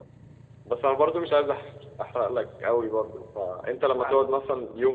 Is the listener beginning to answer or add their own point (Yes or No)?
No